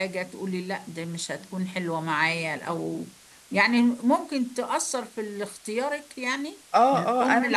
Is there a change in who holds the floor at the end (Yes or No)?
Yes